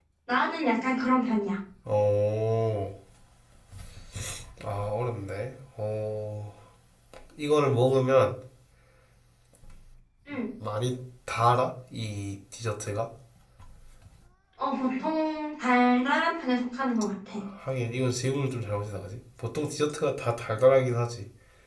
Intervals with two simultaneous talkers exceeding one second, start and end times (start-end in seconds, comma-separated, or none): none